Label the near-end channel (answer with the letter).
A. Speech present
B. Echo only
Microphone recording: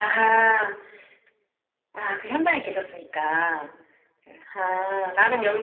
B